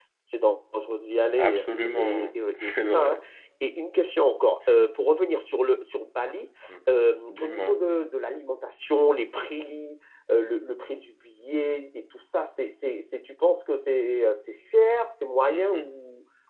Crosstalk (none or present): present